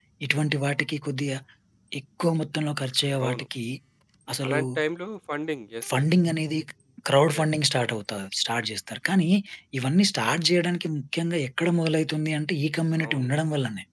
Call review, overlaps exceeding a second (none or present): none